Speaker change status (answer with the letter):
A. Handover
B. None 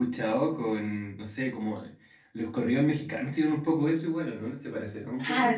A